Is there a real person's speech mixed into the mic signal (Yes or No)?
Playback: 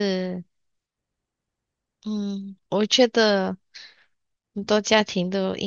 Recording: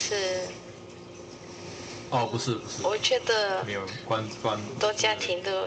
Yes